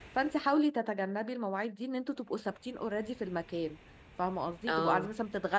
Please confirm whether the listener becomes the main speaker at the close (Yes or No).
No